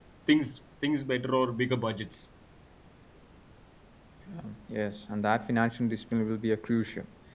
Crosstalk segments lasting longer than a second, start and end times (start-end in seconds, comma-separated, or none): none